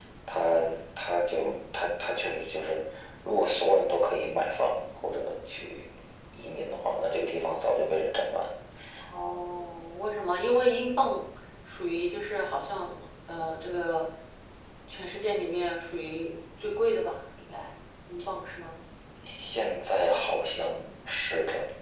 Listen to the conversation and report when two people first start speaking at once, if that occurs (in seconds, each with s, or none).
none